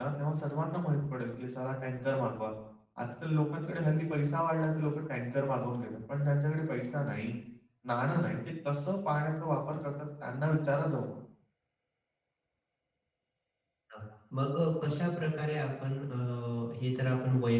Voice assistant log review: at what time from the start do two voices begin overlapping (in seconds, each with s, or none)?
none